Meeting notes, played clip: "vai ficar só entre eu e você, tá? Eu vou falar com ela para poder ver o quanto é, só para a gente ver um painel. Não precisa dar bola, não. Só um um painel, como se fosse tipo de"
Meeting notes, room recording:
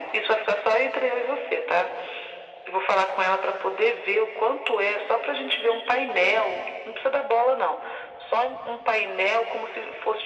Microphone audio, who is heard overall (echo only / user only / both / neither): echo only